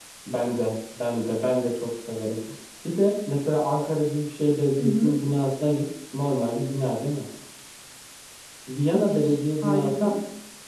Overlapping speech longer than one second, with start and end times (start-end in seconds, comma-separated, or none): 8.9-10.1